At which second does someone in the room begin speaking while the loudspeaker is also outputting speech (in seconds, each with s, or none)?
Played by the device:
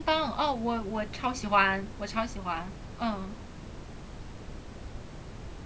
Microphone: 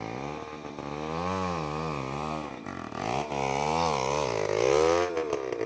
none